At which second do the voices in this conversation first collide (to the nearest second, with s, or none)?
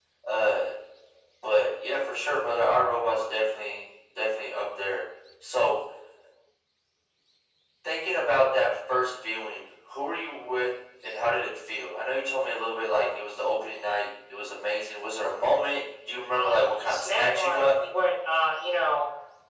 16 s